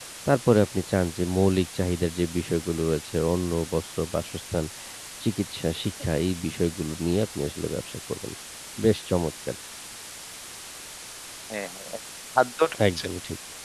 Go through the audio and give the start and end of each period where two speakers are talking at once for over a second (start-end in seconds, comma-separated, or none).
none